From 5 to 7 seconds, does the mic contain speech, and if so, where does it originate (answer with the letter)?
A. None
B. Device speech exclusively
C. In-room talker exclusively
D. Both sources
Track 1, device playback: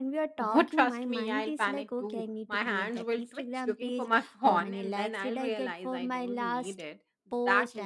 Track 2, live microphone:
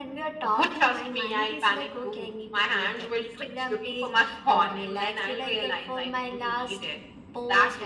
B